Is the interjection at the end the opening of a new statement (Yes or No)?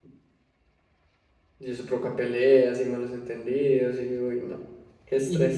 Yes